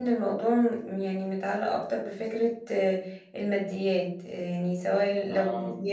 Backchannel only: Yes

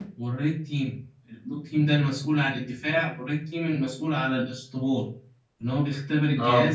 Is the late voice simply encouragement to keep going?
Yes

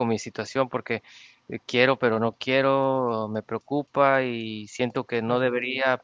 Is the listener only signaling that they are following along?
Yes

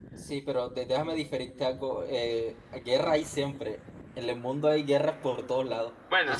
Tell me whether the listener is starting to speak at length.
No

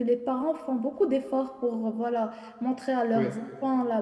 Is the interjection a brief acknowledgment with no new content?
Yes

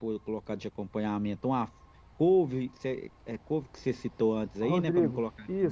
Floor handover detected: Yes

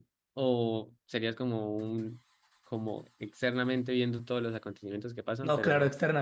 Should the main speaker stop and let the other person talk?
Yes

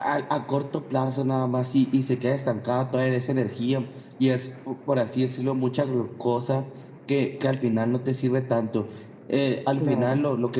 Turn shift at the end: No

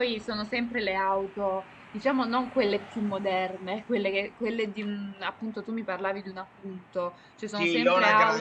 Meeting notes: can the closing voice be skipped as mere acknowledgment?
No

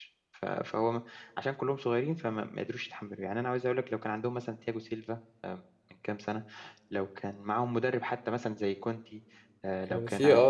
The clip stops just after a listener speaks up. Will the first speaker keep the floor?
No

